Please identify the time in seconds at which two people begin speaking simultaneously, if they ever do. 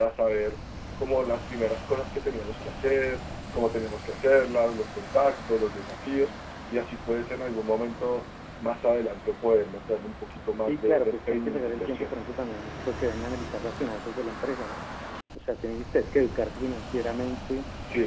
10.7 s

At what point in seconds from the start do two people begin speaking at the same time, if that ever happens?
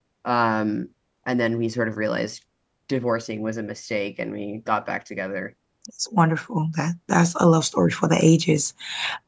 none

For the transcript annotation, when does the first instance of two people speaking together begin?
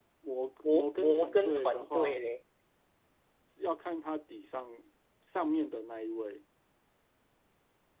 0.7 s

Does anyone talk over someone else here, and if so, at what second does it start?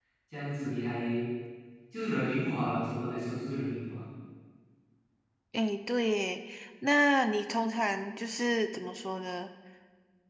none

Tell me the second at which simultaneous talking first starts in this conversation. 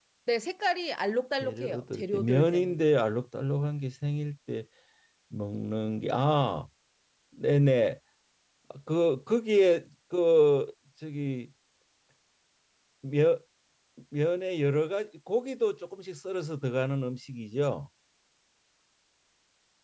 1.4 s

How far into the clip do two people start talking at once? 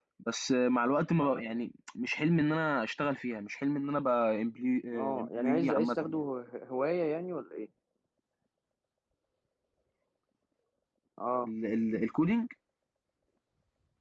4.9 s

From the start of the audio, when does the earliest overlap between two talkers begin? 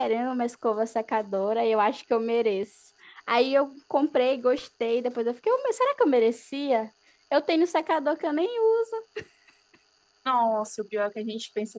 none

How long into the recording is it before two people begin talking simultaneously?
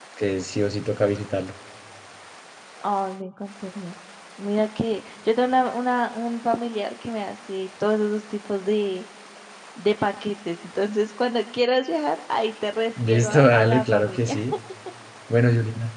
13.0 s

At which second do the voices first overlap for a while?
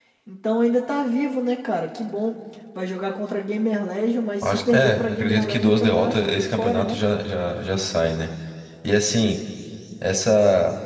4.4 s

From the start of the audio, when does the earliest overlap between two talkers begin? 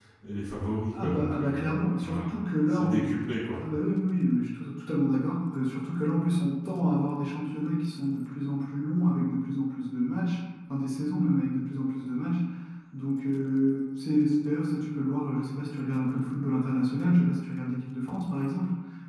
1.0 s

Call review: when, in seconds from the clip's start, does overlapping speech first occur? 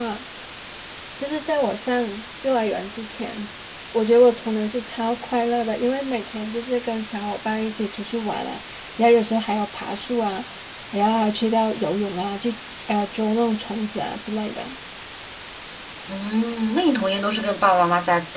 none

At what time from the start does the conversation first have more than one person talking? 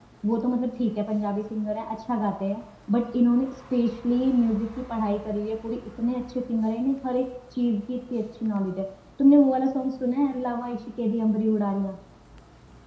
none

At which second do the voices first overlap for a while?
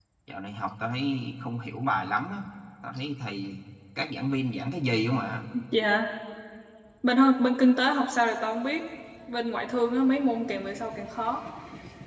none

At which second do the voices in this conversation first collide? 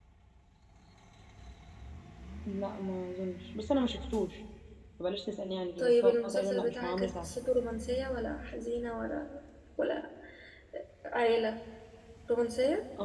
5.8 s

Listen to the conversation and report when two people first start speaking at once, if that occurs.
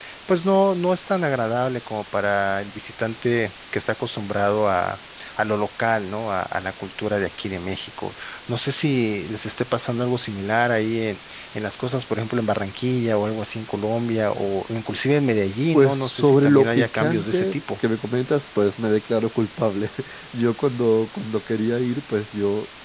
15.7 s

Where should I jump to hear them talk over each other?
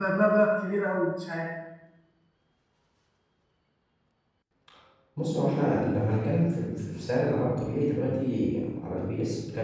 none

